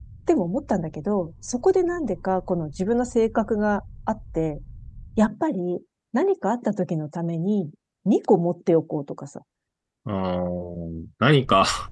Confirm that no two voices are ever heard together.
Yes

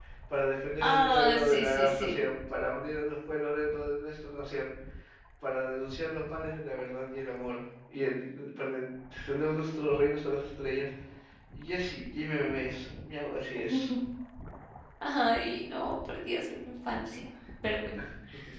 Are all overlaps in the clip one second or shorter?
No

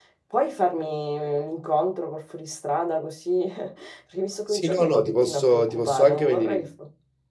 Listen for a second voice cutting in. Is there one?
Yes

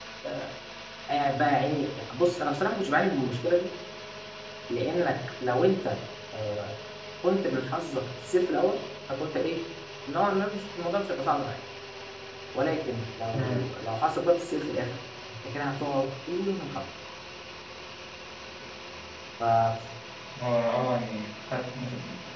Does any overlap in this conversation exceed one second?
No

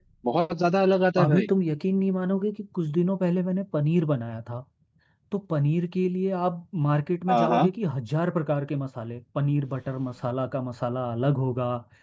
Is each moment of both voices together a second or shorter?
Yes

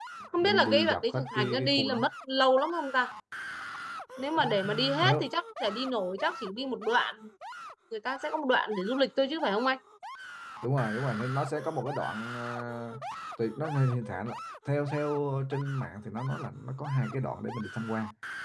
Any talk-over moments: Yes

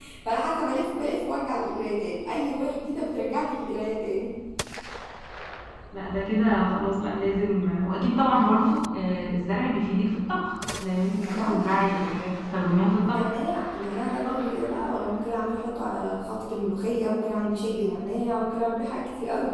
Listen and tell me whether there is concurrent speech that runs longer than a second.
No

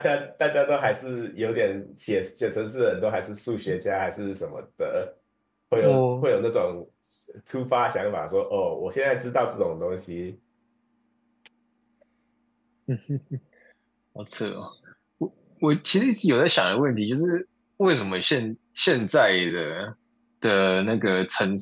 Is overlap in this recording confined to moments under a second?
Yes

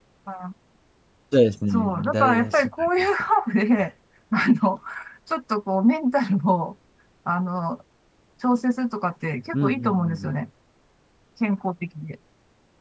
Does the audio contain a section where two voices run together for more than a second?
Yes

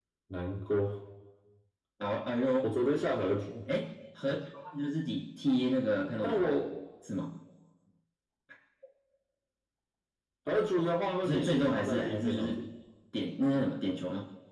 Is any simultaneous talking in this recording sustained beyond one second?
Yes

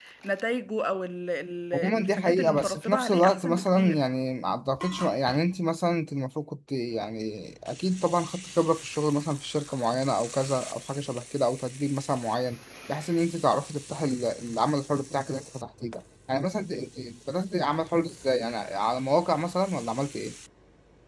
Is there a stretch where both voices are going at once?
Yes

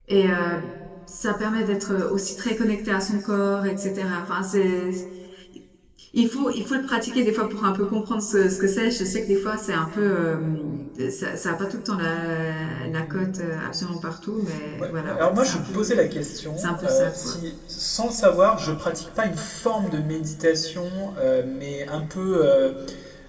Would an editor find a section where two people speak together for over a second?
Yes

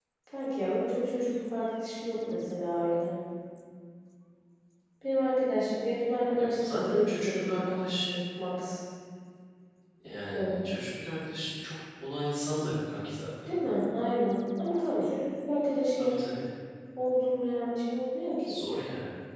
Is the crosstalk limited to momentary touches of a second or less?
No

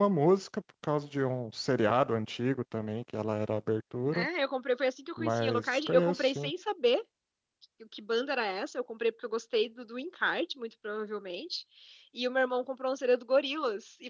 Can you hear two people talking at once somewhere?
Yes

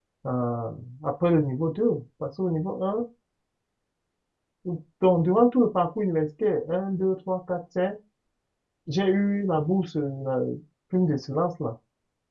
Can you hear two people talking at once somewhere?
No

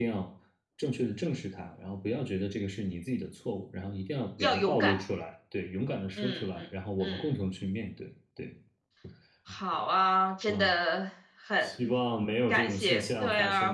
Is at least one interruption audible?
Yes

